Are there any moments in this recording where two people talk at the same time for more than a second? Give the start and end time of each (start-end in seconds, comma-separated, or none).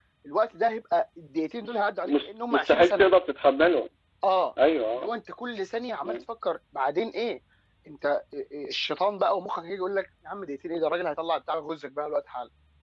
1.7-3.1